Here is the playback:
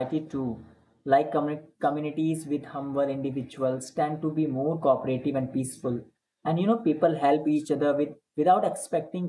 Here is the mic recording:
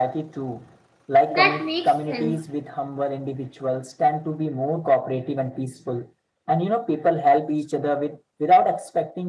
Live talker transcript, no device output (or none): That makes sense.